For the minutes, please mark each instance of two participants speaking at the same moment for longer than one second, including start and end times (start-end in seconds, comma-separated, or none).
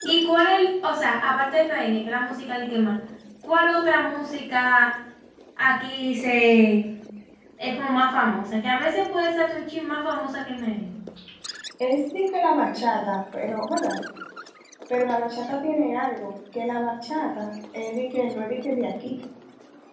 none